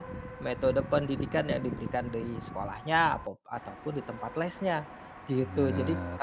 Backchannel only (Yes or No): Yes